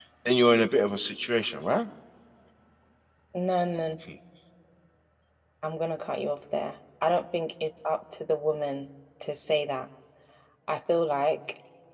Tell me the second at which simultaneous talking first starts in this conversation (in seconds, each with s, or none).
none